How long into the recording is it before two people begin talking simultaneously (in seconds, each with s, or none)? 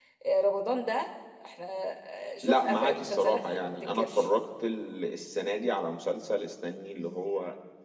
2.4 s